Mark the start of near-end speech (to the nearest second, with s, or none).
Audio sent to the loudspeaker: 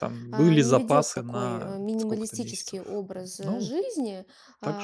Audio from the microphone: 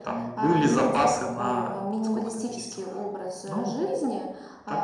none